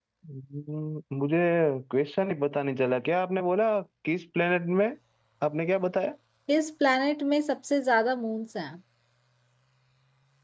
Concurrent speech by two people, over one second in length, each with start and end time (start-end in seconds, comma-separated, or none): none